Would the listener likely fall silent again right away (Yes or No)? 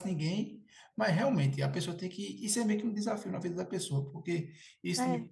Yes